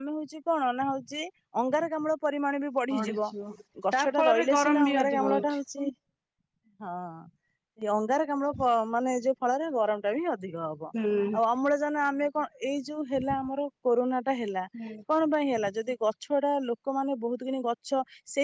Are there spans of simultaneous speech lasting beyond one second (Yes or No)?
Yes